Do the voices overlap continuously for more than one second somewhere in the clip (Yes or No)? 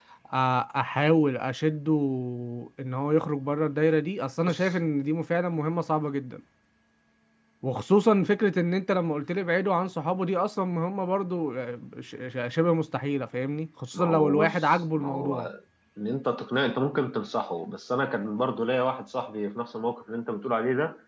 Yes